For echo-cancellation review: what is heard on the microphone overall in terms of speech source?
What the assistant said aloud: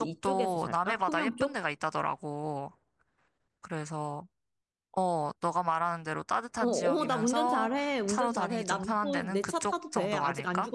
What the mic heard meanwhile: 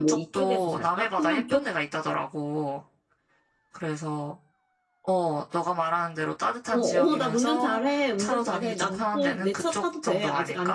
echo only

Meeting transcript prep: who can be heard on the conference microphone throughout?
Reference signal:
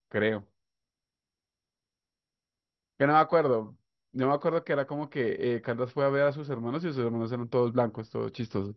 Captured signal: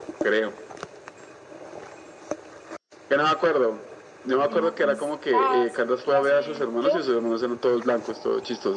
both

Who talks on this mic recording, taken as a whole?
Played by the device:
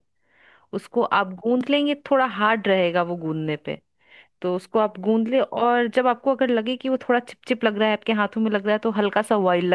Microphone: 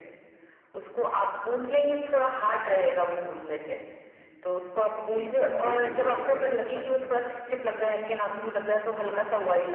both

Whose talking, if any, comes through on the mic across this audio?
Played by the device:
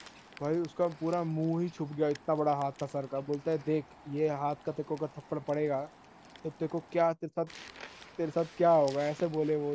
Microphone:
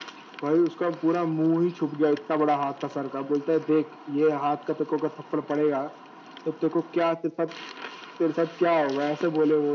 echo only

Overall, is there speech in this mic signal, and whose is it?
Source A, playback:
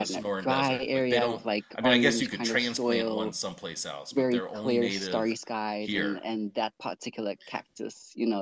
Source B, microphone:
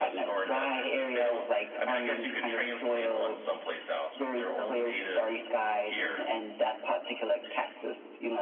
echo only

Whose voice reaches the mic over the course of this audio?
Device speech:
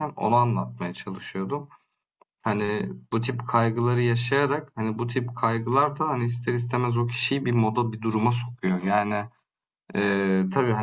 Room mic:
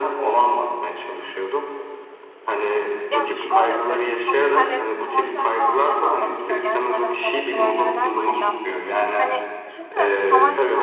both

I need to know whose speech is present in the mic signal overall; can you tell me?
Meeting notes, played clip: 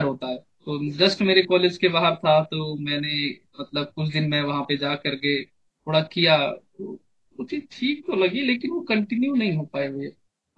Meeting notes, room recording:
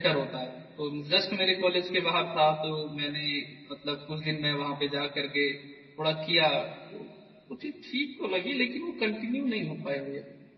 echo only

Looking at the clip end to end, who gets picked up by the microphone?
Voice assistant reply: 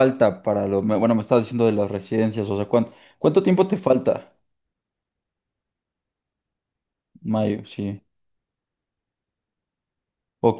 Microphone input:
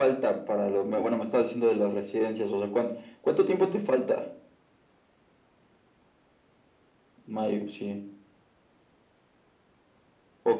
echo only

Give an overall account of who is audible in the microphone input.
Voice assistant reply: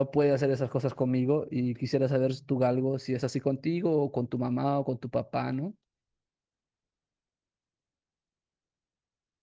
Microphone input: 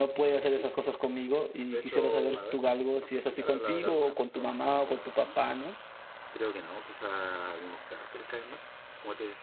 both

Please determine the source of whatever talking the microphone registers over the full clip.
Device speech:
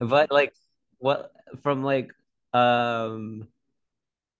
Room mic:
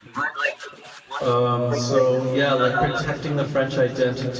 both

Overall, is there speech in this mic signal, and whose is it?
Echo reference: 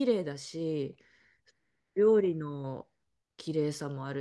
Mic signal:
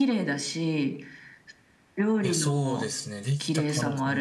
both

